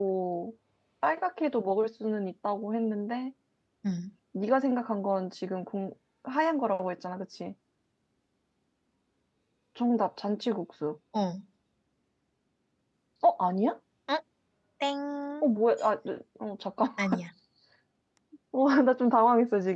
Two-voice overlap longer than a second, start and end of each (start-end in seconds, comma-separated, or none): none